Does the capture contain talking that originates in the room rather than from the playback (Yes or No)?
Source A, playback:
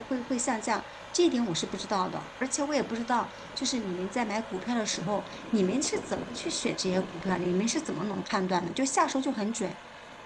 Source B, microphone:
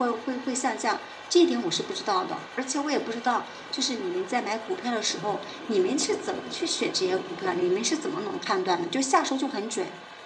No